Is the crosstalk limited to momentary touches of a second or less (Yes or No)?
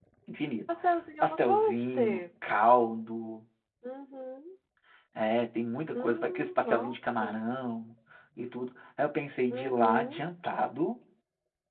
No